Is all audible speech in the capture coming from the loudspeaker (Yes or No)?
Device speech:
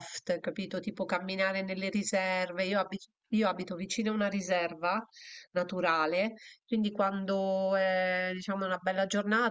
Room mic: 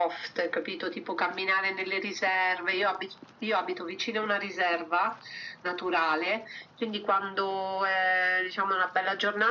Yes